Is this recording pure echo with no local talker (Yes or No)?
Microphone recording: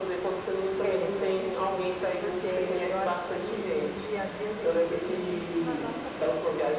No